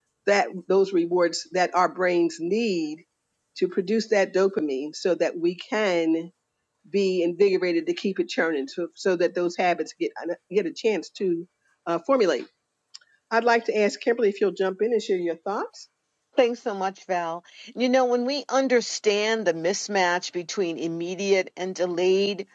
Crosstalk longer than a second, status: none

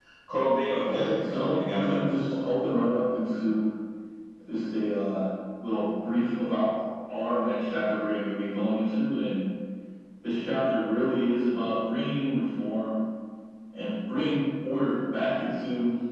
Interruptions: present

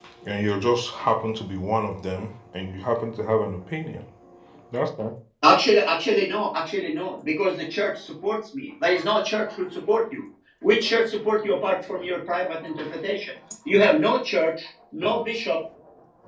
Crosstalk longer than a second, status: none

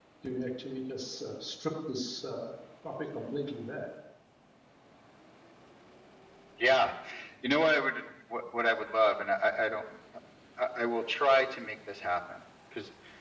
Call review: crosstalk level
none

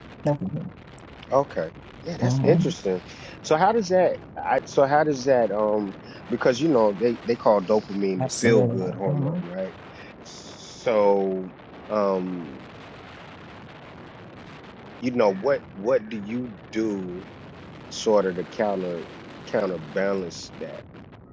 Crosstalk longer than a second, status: present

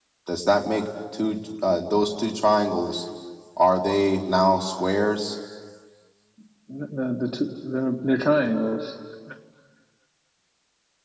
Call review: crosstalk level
none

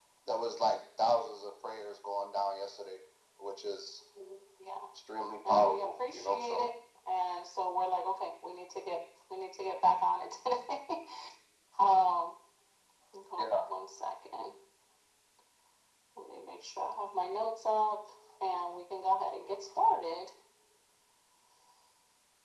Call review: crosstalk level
present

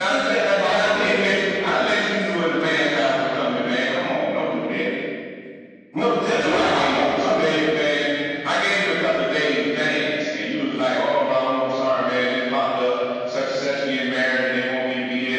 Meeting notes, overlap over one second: present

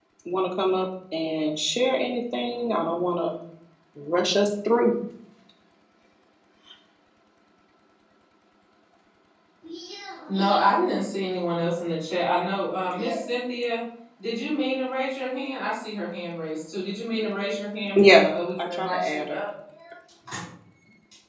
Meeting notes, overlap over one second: present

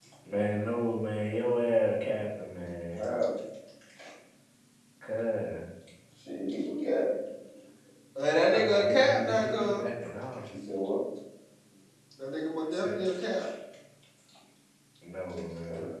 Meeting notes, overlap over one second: present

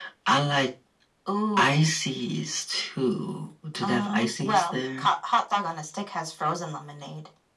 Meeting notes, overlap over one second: present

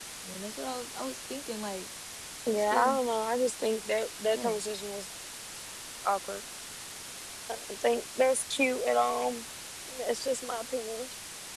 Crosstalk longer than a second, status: none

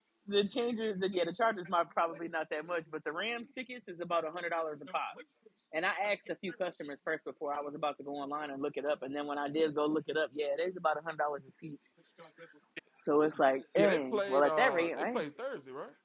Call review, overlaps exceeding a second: present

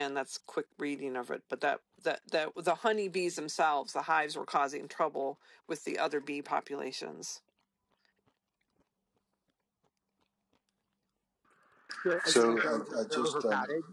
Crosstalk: present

